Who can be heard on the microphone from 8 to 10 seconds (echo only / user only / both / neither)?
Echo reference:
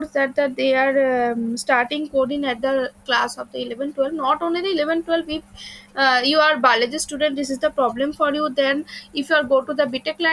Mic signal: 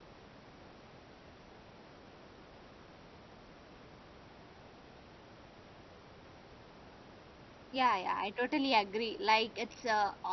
user only